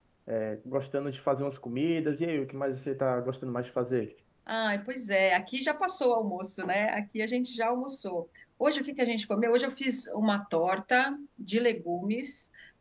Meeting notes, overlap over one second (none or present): none